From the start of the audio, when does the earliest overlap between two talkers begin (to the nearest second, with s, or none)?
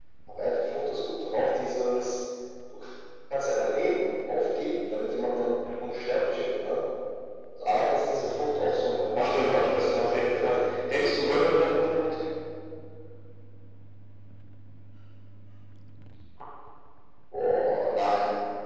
9 s